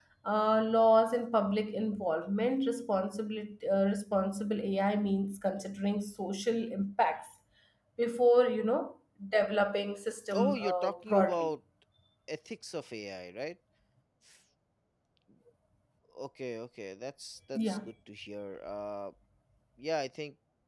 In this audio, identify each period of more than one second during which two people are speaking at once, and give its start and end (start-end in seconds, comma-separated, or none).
10.3-11.5